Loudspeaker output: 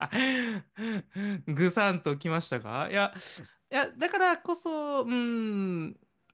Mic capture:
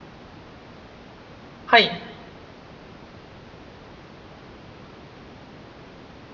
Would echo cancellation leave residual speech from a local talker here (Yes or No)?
Yes